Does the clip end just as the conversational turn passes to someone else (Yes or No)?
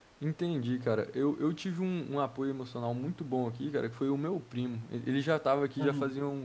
No